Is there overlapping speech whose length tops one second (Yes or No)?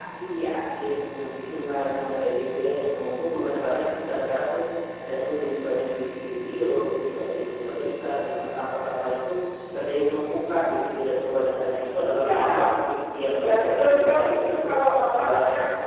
Yes